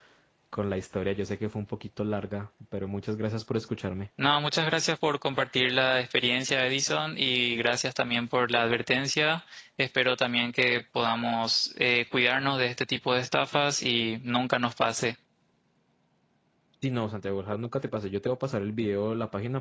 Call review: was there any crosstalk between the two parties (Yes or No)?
No